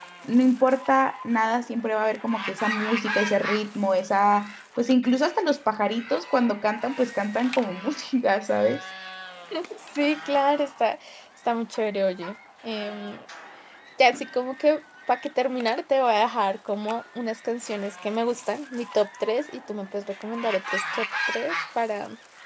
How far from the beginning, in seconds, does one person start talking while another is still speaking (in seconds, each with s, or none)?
none